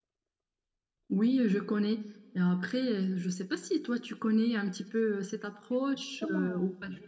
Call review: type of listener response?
taking over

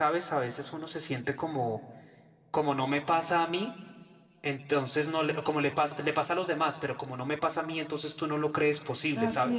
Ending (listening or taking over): taking over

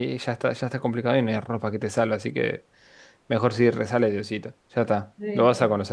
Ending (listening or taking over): taking over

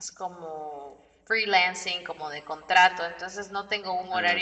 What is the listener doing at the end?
listening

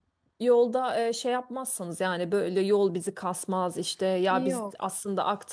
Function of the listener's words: listening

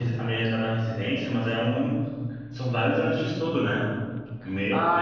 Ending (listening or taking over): taking over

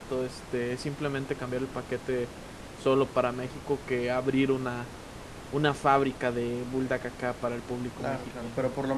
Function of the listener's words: taking over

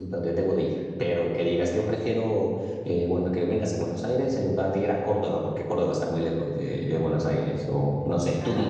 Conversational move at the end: taking over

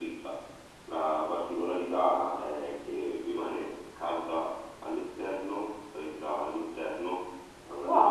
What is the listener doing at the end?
taking over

